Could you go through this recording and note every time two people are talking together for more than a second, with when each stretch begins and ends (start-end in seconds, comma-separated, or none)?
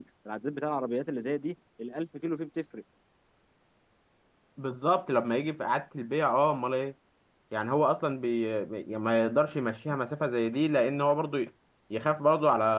none